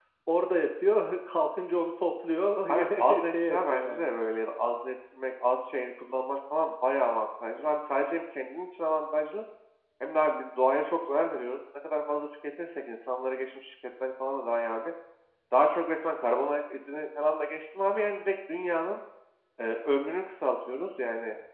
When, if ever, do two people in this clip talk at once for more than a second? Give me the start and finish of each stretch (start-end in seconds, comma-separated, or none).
2.7-4.1